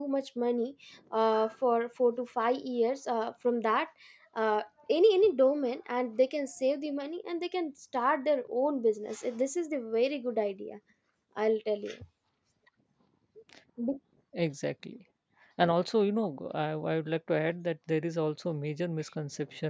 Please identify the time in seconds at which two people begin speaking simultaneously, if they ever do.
none

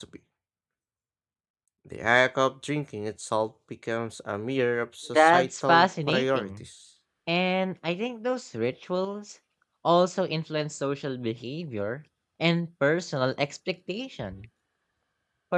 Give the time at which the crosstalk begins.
5 s

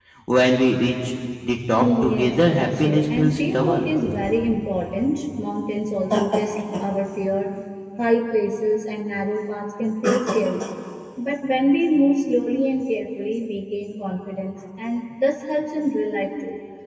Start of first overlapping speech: 2 s

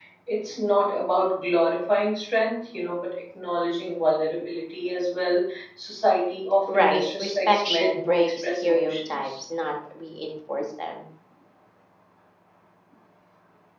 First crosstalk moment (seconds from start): 7 s

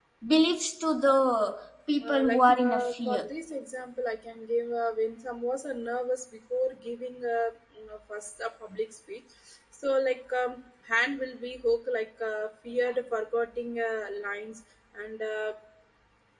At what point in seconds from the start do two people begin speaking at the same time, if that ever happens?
2 s

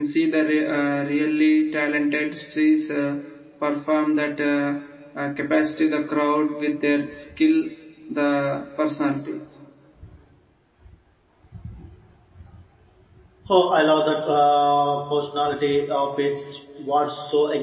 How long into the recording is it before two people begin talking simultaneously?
none

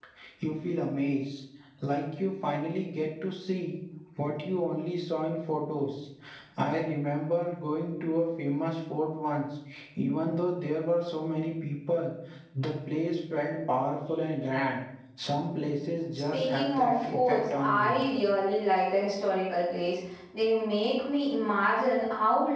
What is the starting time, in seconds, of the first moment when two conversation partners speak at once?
16 s

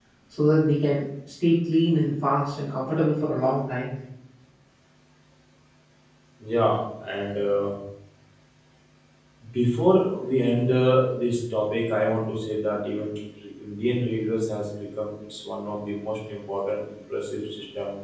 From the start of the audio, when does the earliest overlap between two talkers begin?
none

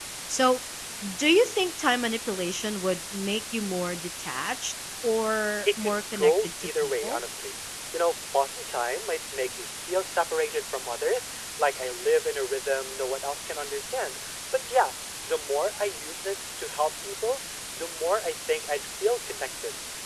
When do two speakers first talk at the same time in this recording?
6 s

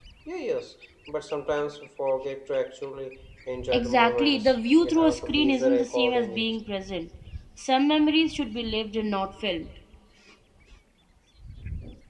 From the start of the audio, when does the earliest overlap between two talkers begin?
4 s

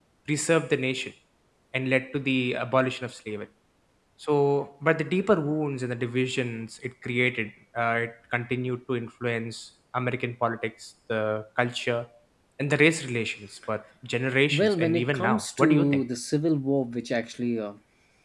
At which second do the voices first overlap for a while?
15 s

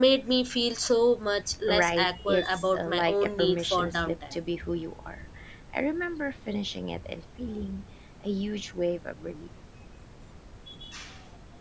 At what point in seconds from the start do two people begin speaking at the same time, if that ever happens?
1 s

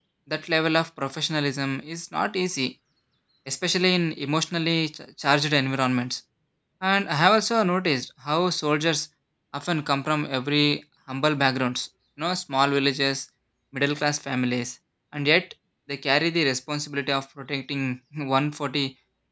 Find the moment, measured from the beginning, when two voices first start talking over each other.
none

